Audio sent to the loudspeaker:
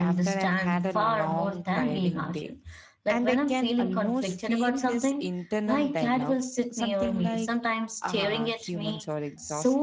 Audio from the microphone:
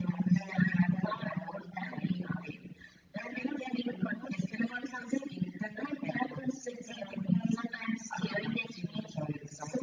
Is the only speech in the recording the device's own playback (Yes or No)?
Yes